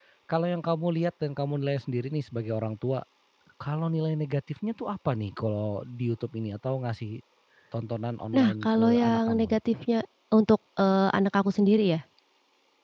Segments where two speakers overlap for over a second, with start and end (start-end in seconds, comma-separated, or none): 8.4-9.6